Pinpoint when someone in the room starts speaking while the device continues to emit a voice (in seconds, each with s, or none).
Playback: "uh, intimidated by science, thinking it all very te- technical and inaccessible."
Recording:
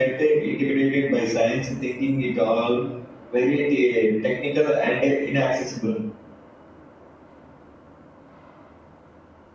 none